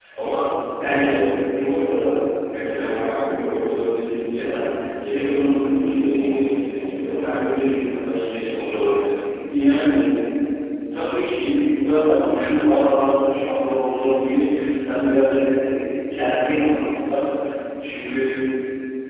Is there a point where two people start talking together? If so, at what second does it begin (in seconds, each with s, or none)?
none